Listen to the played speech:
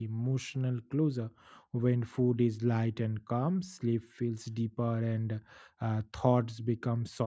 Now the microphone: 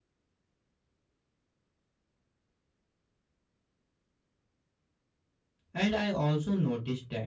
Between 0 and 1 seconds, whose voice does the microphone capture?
neither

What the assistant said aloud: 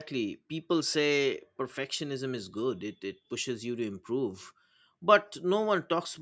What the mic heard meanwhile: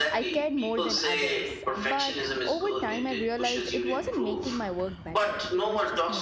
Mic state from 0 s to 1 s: both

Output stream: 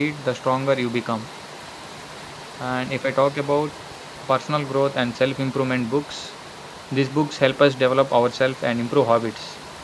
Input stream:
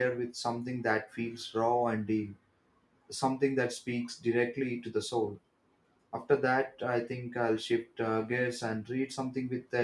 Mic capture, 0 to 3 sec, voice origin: user only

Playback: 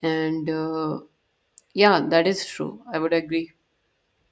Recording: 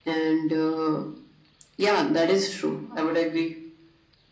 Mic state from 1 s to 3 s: echo only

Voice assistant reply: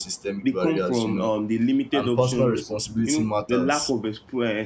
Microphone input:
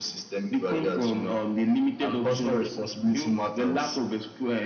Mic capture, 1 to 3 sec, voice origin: echo only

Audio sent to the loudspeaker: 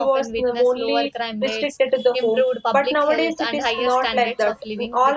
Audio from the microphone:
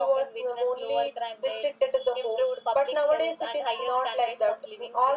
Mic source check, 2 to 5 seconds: echo only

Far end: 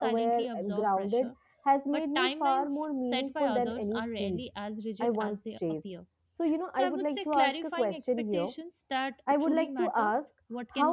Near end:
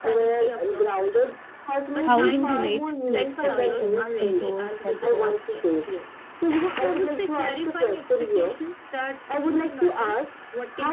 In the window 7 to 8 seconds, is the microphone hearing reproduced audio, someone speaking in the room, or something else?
echo only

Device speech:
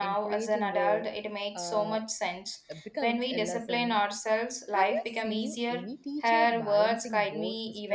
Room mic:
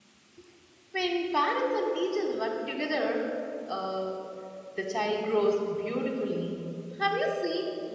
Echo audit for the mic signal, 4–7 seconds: user only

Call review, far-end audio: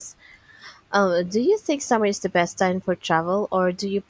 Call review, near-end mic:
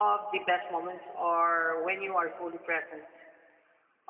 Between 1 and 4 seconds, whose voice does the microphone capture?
user only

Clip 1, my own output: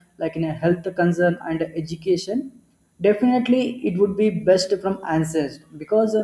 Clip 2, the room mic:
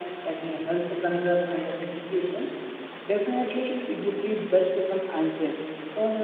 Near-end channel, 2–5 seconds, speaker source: echo only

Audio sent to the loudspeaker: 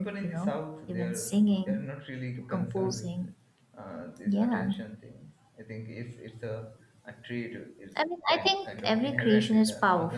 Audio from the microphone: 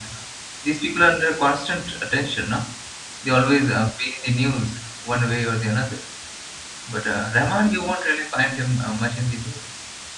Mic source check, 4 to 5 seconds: user only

